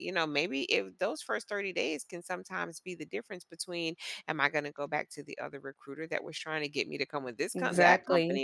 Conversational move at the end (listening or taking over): listening